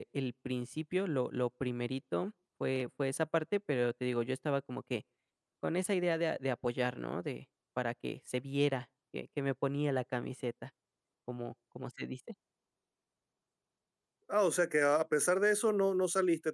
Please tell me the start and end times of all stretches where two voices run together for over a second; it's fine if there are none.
none

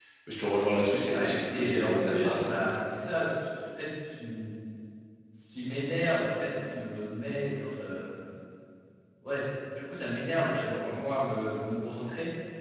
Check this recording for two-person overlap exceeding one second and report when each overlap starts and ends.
1.1-2.5

